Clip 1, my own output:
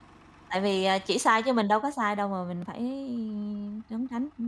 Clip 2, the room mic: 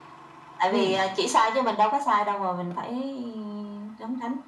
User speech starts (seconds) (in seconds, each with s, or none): 0.7 s